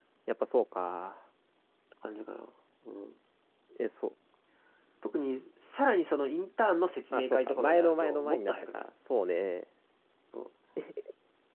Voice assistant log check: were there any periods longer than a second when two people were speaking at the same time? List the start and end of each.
7.1-8.9

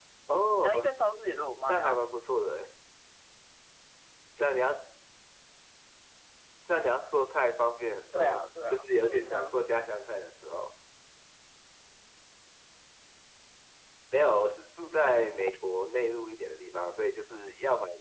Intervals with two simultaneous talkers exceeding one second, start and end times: 8.1-9.6

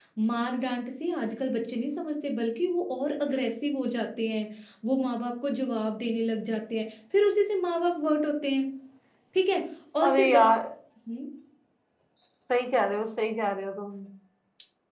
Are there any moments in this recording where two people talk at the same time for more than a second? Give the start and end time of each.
none

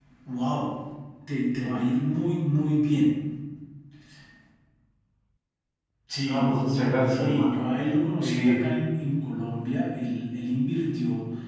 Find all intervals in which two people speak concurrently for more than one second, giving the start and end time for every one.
6.2-7.6

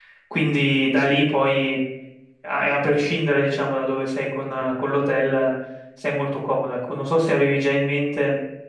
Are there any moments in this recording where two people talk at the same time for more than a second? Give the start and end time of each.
none

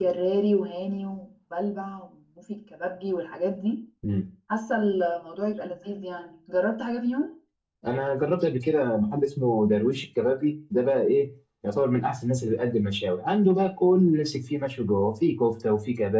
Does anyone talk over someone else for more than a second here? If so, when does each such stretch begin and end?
none

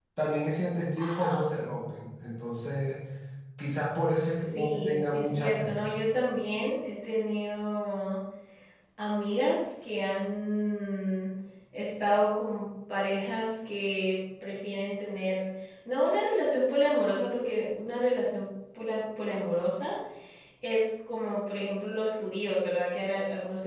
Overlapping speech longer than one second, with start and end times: 4.4-5.7

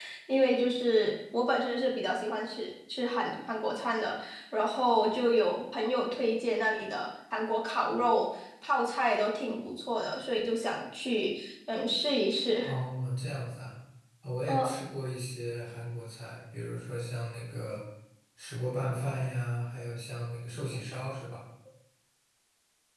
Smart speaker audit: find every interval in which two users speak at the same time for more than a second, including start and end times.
none

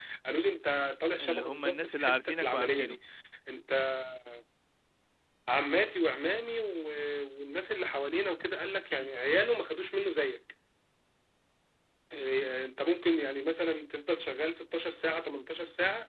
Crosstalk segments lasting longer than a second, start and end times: 1.2-3.0

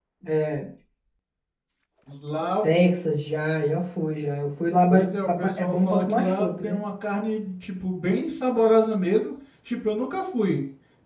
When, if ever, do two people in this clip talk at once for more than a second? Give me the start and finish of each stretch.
4.9-6.8

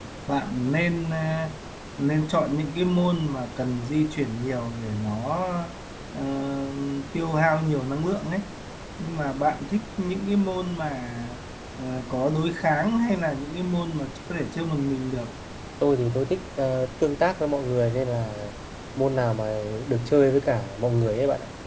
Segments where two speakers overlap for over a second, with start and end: none

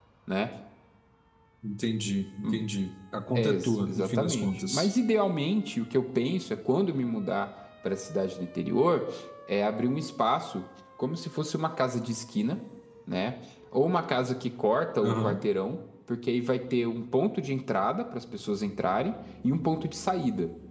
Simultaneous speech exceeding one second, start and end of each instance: 3.4-4.9

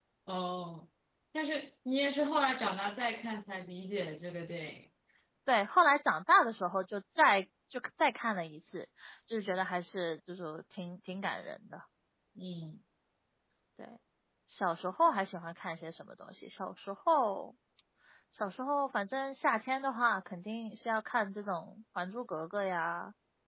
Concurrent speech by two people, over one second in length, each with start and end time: none

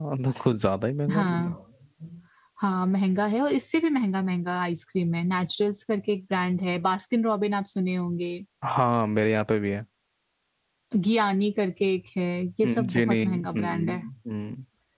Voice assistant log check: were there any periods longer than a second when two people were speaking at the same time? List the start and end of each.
12.6-13.9

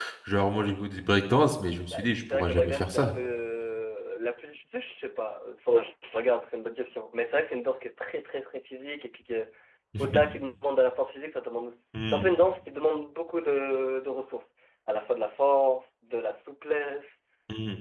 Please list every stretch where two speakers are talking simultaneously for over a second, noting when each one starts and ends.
1.9-3.1

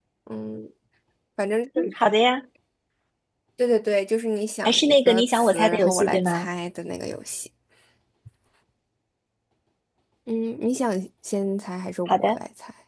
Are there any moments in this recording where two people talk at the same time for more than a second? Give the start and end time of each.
4.6-6.5

